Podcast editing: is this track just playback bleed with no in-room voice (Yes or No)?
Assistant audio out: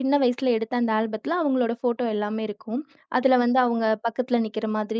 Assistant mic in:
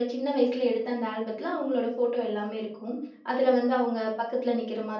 Yes